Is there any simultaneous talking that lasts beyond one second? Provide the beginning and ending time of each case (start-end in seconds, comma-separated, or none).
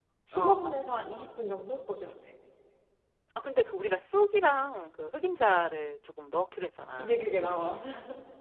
none